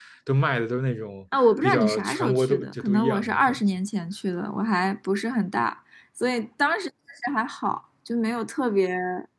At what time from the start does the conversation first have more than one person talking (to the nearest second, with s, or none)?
1 s